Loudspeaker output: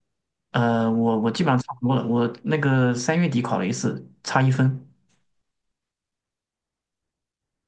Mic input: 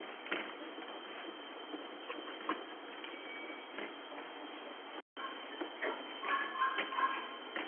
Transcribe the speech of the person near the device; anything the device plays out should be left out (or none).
none